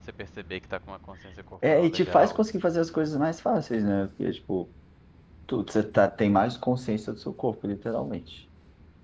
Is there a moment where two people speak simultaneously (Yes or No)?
Yes